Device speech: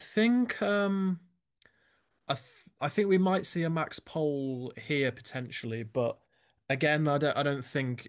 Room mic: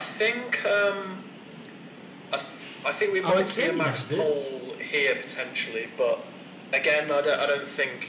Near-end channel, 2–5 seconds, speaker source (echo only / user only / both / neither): both